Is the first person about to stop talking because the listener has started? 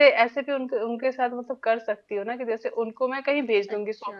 No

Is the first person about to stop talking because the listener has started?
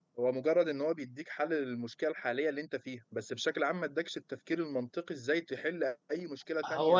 Yes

